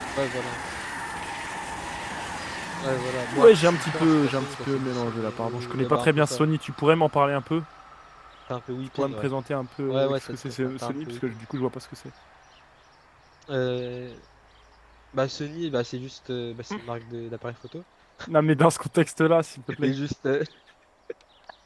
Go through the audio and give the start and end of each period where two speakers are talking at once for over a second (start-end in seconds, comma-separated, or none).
3.3-6.5, 9.9-11.2